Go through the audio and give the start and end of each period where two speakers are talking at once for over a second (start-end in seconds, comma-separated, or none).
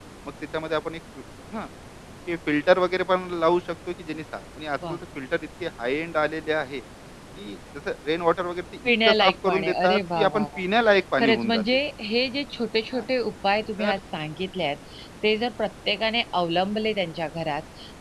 9.1-10.6